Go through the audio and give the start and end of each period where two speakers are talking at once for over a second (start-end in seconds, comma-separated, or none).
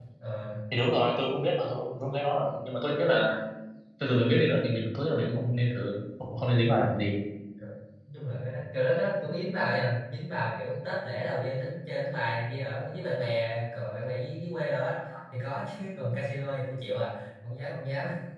none